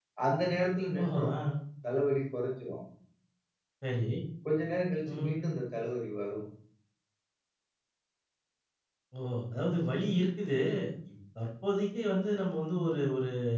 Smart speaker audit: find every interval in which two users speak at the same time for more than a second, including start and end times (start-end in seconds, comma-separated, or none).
none